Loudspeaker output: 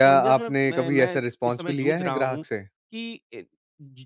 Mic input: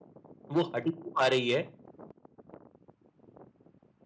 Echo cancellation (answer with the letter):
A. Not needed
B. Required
A